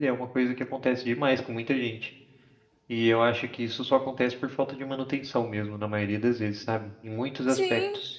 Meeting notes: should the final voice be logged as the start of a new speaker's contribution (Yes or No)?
Yes